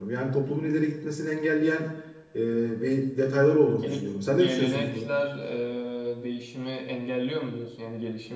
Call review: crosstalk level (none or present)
present